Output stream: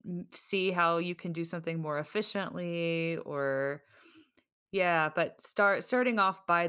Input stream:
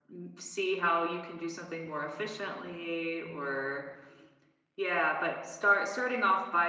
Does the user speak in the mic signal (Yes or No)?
No